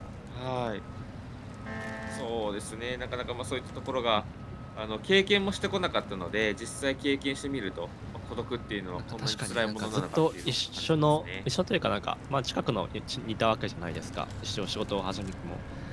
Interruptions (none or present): present